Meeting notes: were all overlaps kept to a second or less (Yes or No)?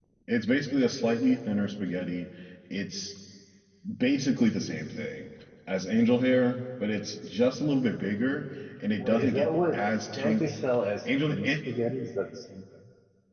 No